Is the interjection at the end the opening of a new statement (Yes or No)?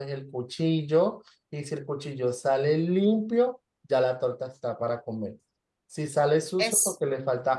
No